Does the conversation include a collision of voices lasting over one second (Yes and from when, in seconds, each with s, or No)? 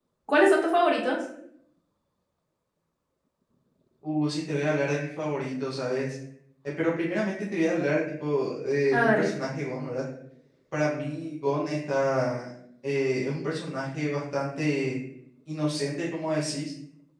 No